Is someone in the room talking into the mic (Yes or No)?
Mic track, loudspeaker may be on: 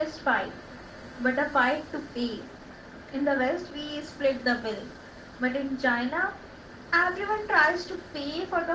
No